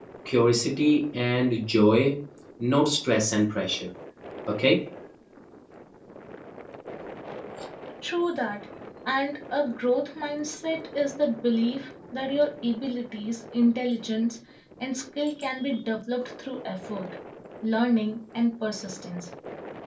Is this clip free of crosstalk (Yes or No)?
Yes